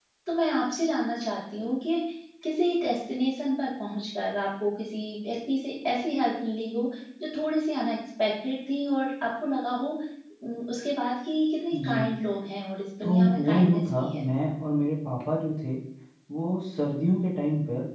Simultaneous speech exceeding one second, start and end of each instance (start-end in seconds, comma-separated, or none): 13.0-14.2